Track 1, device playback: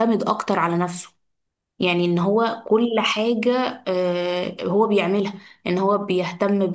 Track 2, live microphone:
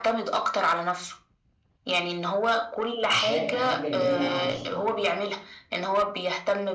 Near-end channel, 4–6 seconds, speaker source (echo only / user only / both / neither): both